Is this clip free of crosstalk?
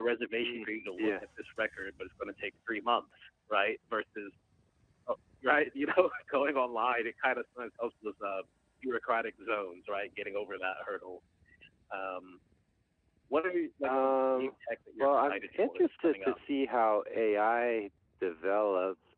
No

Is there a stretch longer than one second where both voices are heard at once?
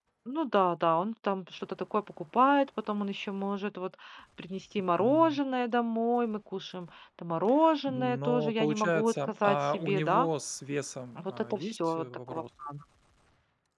Yes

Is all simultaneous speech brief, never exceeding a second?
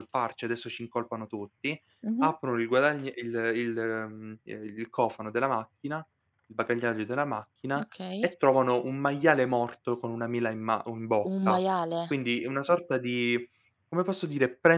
Yes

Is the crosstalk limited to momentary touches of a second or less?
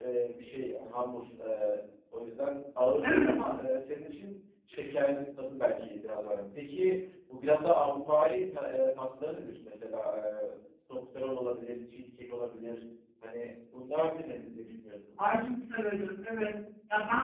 Yes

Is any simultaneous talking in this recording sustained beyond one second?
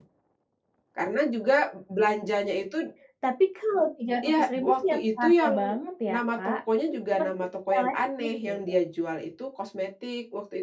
Yes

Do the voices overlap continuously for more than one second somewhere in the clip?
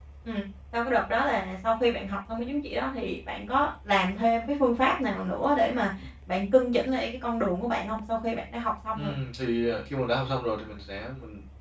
No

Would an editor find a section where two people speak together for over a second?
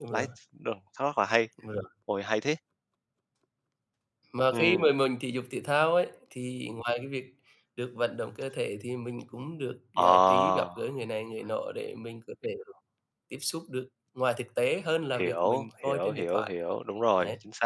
Yes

